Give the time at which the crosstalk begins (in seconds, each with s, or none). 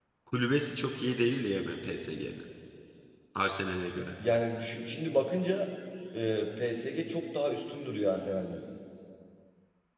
none